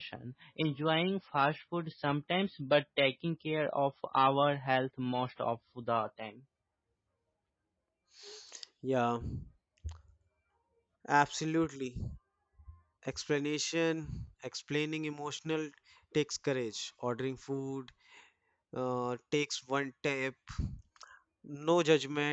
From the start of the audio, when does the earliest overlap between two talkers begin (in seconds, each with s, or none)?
none